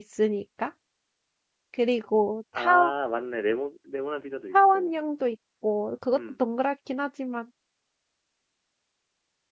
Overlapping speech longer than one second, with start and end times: none

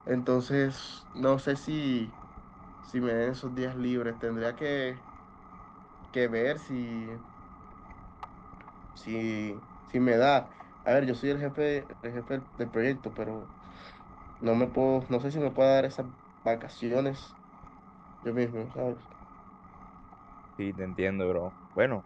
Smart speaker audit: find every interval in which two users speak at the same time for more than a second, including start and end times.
none

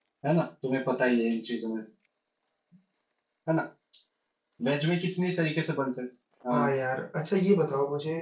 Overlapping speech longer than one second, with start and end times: none

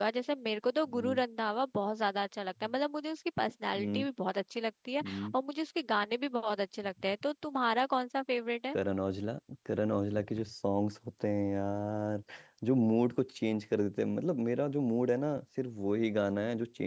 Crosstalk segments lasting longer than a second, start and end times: none

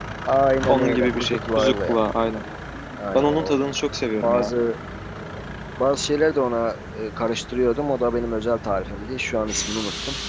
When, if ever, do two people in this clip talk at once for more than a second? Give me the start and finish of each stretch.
0.7-2.0

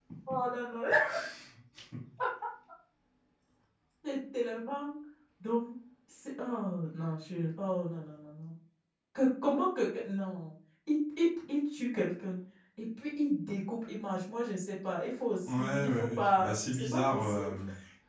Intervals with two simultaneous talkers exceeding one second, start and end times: 15.4-17.5

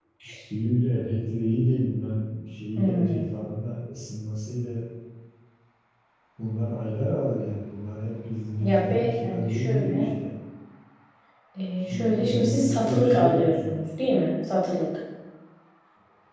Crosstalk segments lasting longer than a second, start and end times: 8.6-10.1, 11.8-13.8

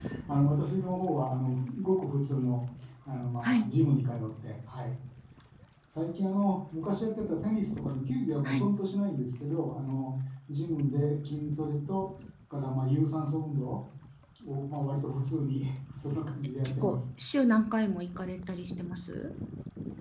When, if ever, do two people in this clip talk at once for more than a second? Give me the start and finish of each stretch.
none

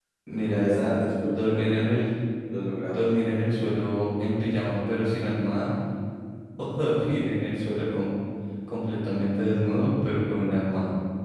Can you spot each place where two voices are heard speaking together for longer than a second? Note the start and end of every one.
none

